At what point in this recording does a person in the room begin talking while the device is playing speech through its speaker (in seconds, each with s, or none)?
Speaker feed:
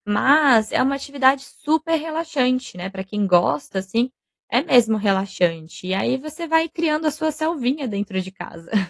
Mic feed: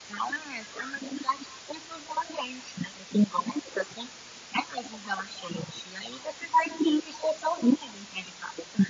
none